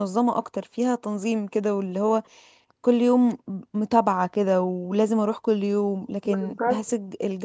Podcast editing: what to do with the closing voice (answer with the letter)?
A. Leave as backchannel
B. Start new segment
A